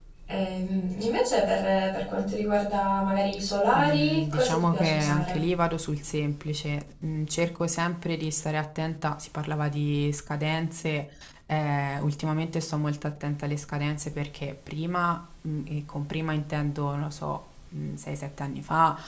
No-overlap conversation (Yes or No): No